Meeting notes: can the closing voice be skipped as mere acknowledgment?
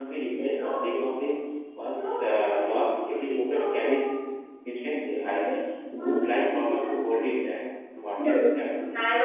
No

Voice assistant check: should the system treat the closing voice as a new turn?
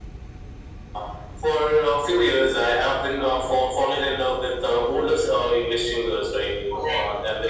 Yes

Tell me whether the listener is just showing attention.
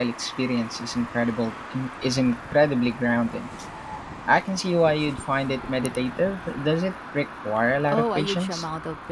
No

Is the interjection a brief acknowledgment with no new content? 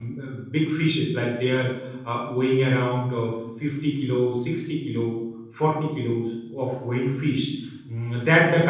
Yes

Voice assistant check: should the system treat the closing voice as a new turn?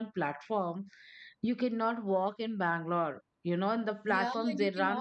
Yes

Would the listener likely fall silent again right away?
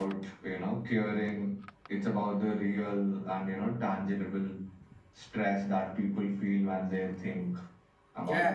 No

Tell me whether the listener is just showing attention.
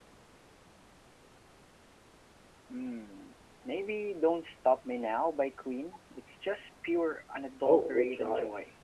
No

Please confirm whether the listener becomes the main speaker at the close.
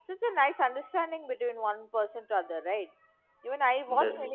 No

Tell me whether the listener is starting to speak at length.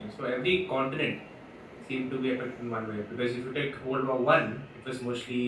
No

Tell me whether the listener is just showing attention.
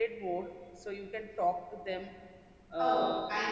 No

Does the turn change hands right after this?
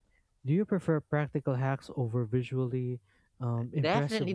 Yes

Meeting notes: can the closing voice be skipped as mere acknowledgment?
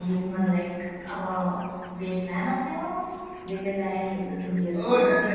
No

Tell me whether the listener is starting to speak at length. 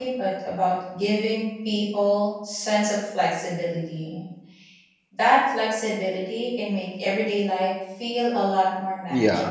Yes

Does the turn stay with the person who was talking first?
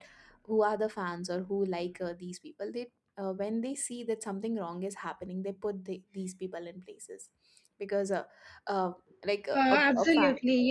No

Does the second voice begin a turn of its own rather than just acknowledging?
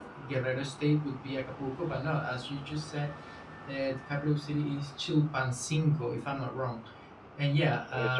No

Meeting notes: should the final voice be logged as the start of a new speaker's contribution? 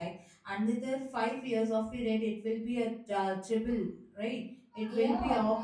Yes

